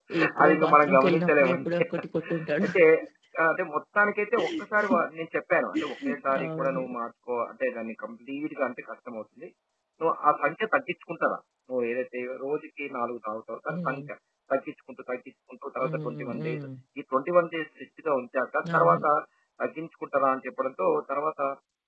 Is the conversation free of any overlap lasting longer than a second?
No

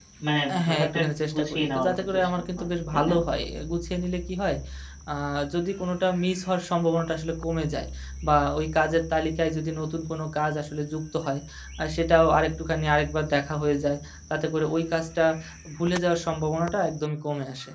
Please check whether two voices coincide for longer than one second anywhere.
Yes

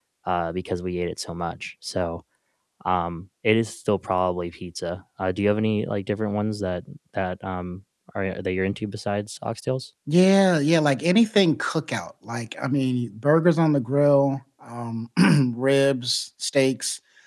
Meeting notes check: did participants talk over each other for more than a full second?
No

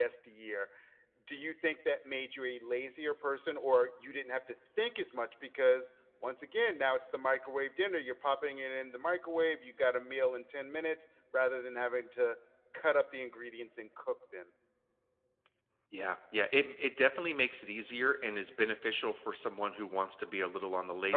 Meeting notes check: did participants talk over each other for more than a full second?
No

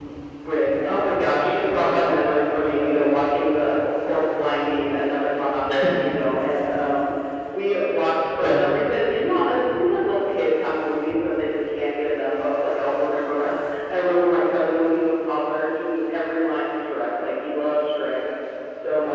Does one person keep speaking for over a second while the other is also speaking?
Yes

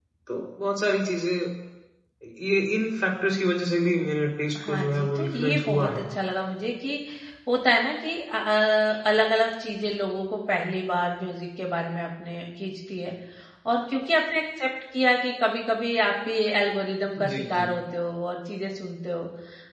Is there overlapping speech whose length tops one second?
Yes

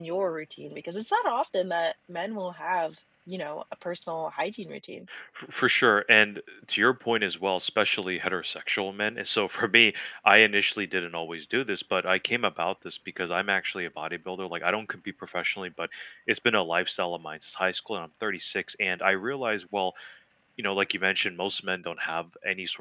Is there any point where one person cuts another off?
No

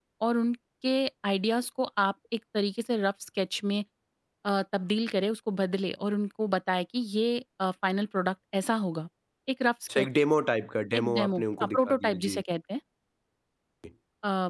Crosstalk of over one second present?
Yes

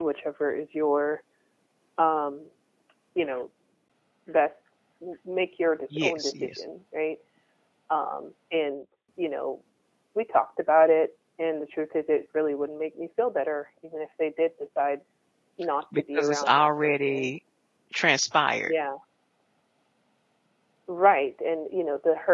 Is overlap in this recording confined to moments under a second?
No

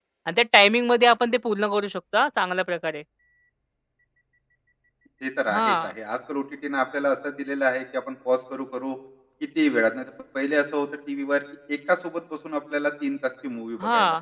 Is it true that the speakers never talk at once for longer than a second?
Yes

